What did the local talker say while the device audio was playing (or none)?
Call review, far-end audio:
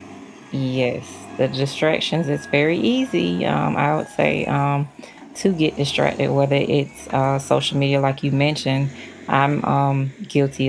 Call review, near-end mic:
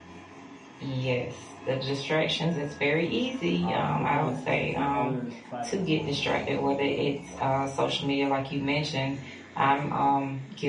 um, but then uh, the other side of the coin is social media as well.